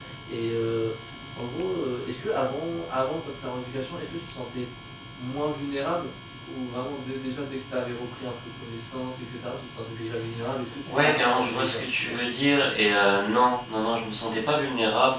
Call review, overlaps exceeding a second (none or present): present